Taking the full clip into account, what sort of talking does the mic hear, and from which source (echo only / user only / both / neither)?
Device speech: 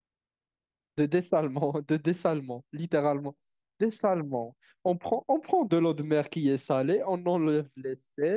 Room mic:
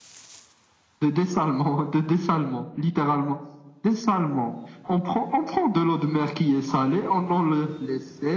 echo only